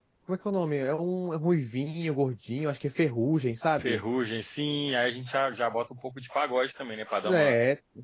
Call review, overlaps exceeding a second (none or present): none